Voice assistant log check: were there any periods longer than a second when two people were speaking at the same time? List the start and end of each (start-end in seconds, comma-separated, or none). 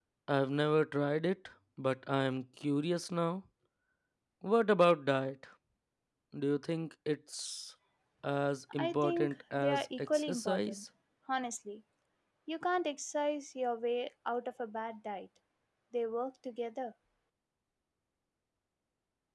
8.8-10.8